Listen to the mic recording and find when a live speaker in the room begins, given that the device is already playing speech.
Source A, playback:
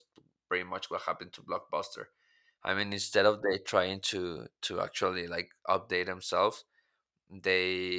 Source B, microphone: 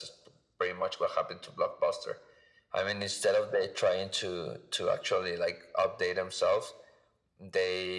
none

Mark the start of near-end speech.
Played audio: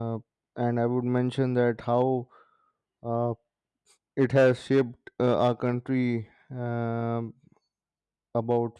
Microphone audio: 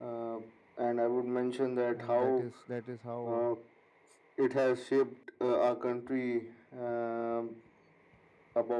1.9 s

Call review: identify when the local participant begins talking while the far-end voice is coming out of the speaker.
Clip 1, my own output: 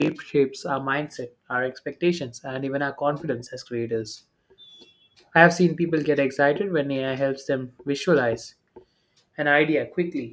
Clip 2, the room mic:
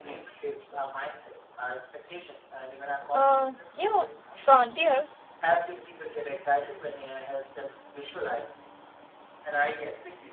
3.1 s

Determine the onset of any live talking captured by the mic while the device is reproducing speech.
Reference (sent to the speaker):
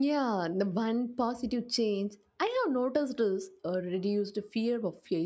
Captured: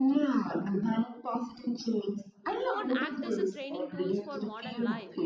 2.6 s

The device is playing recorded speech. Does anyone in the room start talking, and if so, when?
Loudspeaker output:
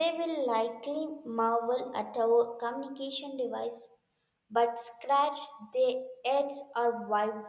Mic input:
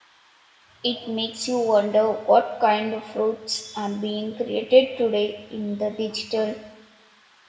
0.8 s

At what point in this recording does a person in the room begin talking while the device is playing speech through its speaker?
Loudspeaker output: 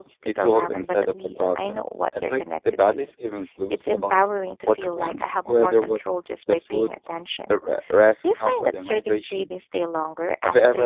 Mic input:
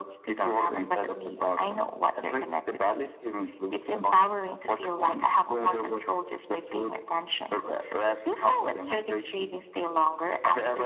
none

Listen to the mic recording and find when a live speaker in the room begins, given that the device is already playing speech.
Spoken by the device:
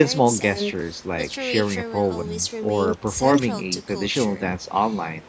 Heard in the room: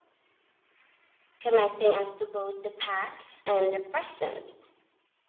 1.4 s

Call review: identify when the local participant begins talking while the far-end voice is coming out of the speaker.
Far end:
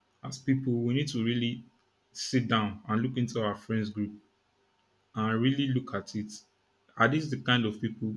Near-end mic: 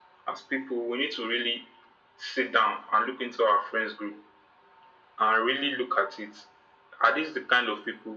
none

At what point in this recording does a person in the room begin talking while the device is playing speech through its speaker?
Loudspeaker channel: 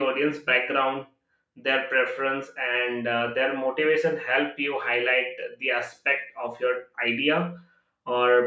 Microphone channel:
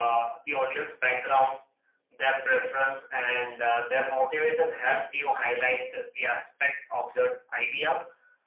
none

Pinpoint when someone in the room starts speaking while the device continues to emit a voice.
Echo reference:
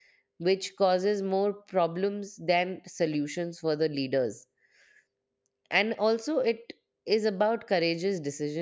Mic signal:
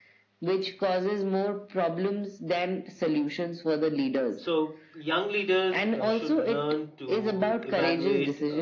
4.3 s

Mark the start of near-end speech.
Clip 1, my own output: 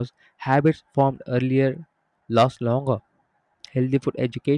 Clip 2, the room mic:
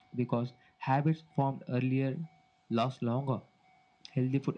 none

